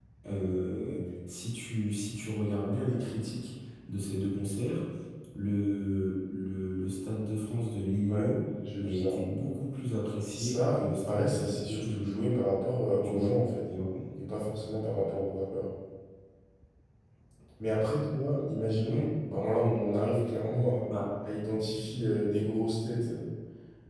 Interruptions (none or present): present